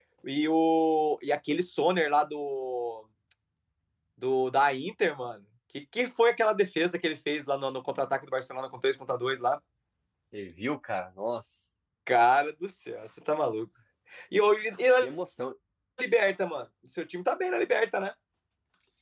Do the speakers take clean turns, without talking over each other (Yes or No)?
Yes